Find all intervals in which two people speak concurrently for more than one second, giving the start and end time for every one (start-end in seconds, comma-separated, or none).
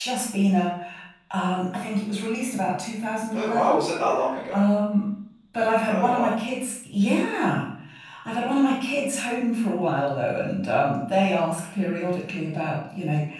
none